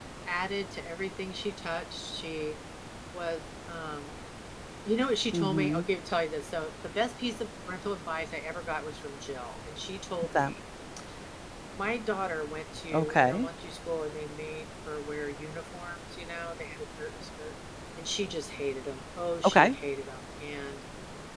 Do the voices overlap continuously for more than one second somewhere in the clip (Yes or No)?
No